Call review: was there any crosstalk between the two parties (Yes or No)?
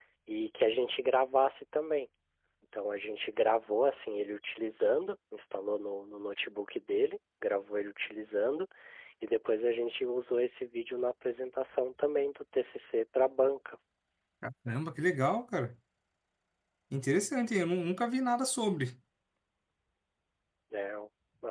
No